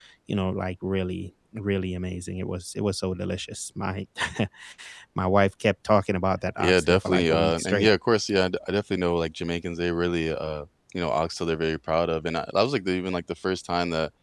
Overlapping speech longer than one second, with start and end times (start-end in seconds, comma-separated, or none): 6.6-7.9